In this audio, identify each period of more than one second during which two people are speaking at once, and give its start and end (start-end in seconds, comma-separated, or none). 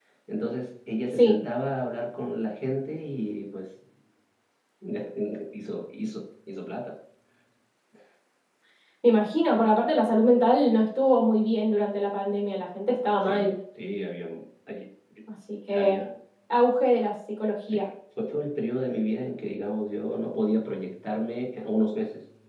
none